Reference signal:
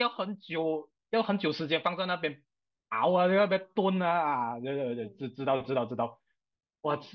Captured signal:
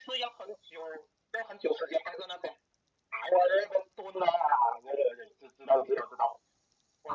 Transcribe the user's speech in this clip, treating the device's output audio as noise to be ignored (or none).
none